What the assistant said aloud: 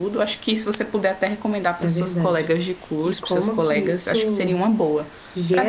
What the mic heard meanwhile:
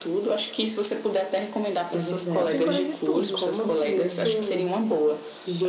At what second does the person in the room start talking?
2.3 s

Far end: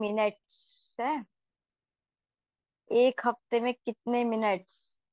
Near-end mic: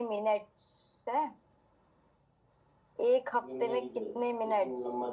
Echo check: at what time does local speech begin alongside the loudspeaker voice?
3.5 s

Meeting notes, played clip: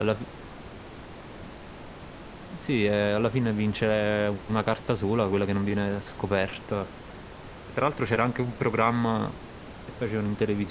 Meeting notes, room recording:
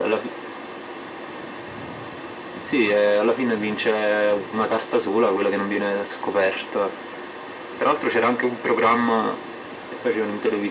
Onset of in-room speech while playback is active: none

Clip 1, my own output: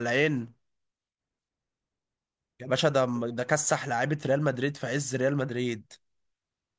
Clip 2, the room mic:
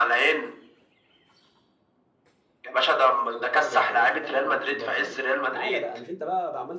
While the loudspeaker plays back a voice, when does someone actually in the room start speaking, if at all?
3.4 s

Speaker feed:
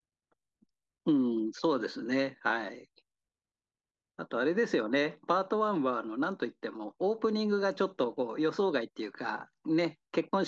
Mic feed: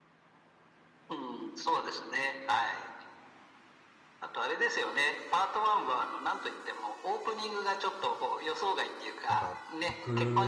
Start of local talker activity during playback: 9.3 s

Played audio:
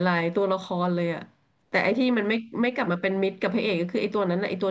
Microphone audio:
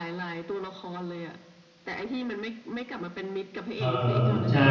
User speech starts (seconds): 3.8 s

